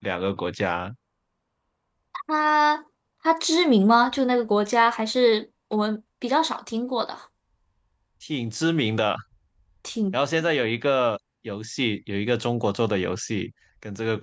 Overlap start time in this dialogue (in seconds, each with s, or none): none